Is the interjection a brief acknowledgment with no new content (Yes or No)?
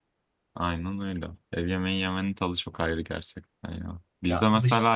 Yes